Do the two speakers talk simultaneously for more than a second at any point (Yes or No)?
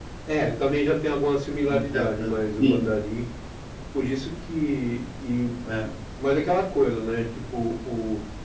Yes